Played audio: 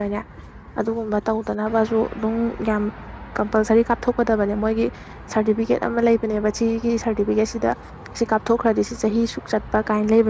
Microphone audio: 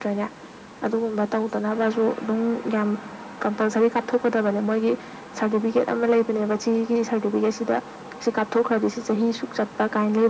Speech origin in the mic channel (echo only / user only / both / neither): echo only